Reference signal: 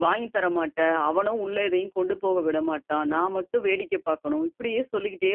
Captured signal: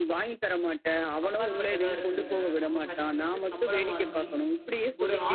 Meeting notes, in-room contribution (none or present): present